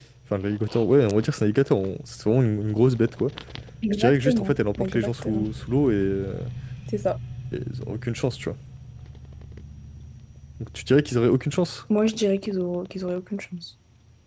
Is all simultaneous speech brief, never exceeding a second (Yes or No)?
No